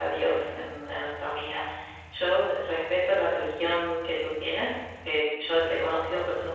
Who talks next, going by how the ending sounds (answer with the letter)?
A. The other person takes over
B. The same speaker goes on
B